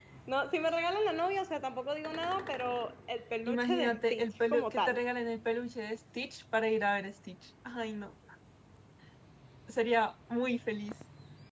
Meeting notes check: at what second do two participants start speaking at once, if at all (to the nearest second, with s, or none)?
3 s